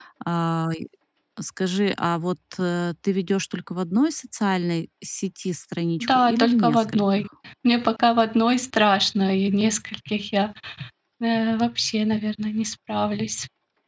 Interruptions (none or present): present